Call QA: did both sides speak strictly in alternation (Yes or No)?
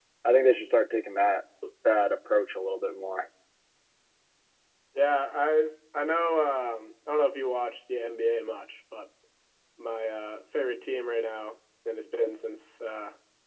Yes